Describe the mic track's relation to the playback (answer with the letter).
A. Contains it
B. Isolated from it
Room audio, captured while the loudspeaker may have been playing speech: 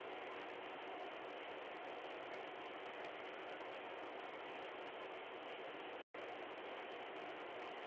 B